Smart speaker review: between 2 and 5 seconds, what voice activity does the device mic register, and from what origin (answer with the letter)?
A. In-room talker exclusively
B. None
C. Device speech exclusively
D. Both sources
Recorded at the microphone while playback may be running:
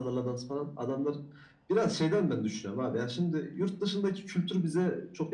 C